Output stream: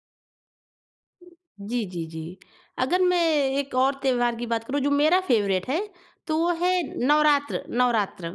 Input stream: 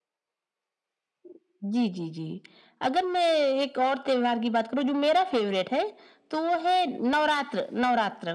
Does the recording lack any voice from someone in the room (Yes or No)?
Yes